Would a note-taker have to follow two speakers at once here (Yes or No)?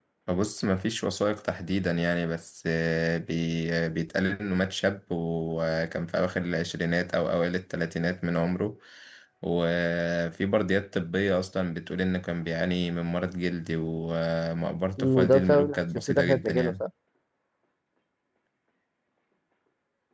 Yes